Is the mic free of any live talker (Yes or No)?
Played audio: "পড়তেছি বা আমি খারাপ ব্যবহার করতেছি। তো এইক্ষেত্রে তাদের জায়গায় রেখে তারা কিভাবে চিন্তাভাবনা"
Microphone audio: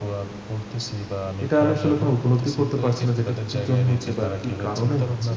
No